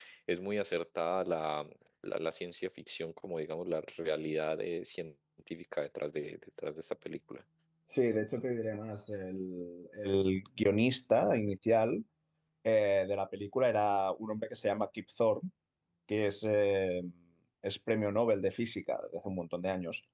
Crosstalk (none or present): none